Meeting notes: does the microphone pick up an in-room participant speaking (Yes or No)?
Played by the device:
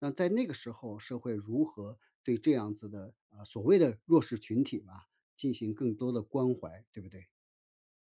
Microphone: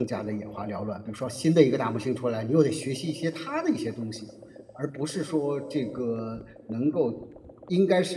Yes